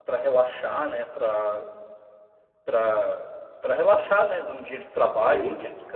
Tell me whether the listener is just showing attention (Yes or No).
Yes